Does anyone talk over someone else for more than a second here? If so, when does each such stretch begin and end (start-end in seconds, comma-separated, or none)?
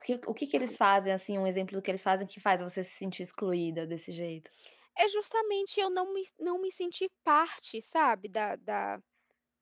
none